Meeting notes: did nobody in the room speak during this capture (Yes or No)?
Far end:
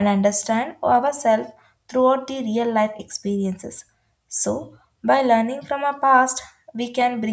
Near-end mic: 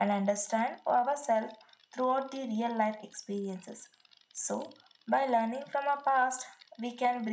Yes